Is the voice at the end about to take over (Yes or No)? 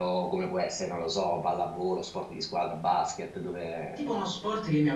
Yes